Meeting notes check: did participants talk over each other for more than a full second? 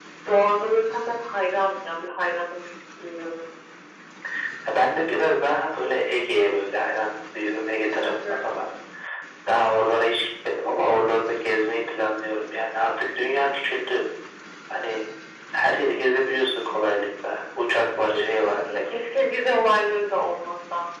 No

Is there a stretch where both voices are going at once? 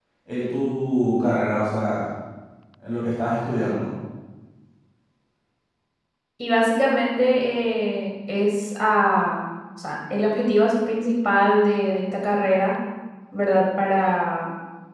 No

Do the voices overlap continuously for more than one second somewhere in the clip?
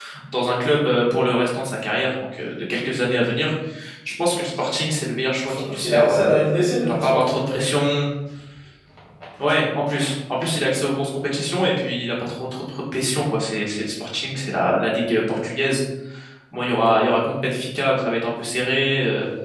Yes, from 5.4 s

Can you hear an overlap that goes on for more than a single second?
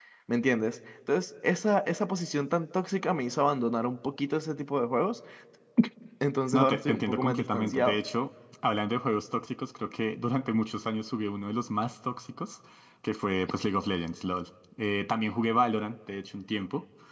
Yes, from 6.5 s

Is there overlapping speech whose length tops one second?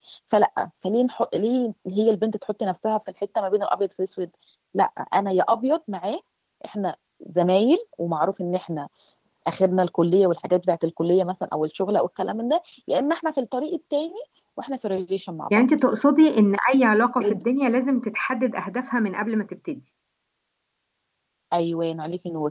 No

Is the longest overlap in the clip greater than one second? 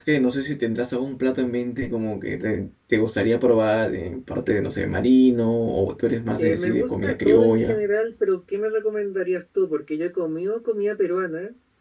Yes, from 6.4 s

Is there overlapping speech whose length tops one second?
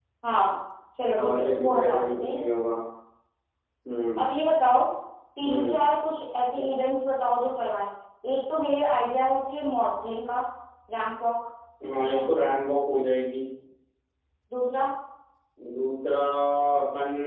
Yes, from 1.2 s

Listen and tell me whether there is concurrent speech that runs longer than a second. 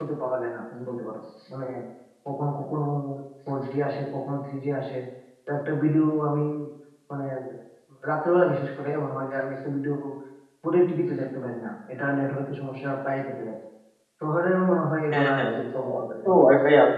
Yes, from 15.1 s

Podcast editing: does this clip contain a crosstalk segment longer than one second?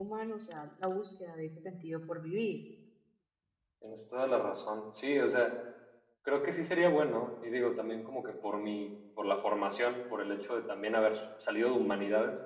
No

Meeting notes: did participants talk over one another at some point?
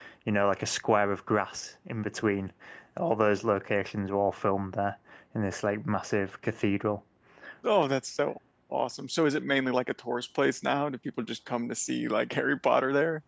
No

